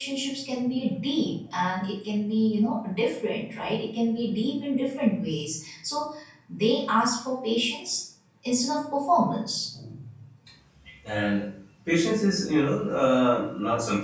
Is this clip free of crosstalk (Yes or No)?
Yes